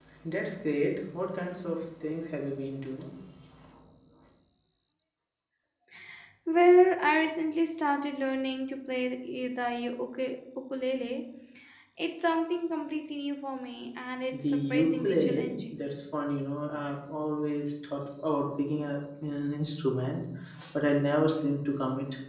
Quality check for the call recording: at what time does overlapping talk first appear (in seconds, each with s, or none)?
14.3 s